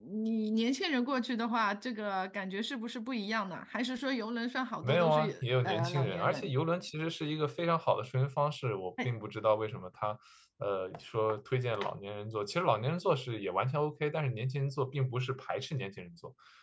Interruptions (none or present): present